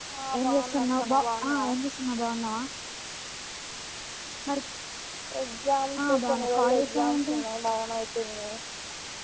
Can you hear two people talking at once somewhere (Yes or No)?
Yes